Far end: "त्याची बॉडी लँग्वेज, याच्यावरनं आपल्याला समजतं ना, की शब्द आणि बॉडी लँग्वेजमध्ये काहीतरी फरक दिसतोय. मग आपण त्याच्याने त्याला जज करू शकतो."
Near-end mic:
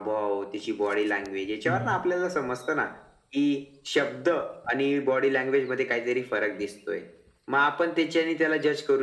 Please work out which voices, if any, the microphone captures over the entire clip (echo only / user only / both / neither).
both